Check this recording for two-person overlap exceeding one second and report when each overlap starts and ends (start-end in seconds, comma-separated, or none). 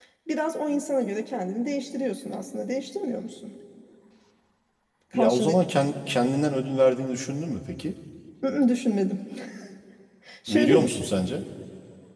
none